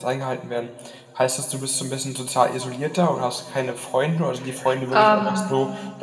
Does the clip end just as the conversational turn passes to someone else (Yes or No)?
No